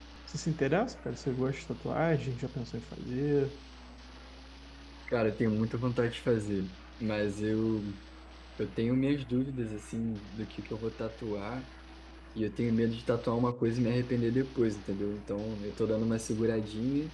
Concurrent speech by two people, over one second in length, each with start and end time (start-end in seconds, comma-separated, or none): none